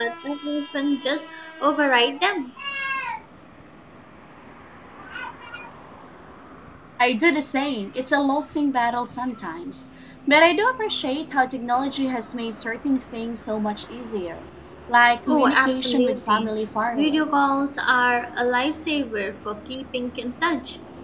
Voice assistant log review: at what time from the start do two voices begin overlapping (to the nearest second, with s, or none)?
15 s